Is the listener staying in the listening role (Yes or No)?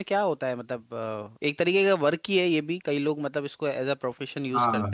No